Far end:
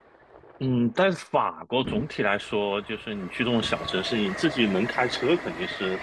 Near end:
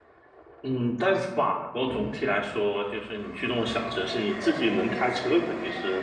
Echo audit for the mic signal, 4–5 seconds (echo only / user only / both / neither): both